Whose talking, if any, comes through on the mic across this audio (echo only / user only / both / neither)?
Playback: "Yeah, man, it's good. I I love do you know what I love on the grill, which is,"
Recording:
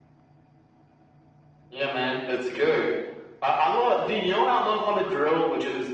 echo only